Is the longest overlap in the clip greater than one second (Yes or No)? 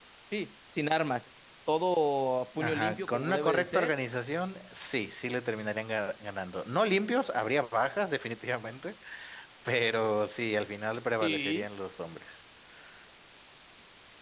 Yes